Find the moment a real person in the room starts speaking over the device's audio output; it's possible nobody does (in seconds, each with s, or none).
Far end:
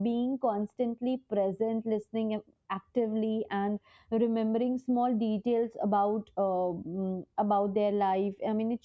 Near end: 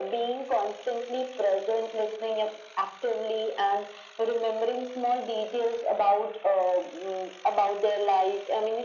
none